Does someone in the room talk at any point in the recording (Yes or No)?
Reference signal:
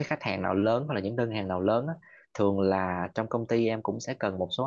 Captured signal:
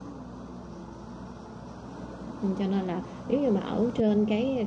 Yes